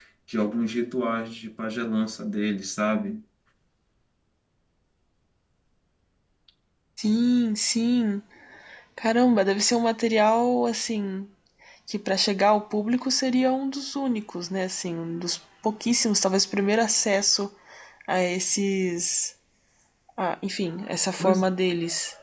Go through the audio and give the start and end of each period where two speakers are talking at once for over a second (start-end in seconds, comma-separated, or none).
none